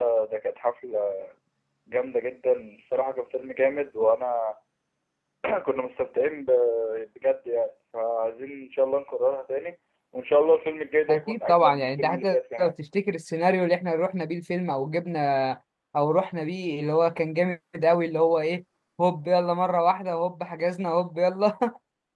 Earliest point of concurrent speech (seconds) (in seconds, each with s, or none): 11.1 s